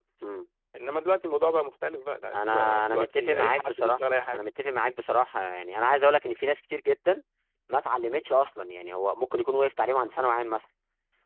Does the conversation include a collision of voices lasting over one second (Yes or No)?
Yes